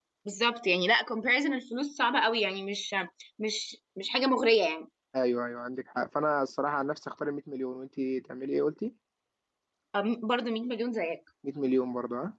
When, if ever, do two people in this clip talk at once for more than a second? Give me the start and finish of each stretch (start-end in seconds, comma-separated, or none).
none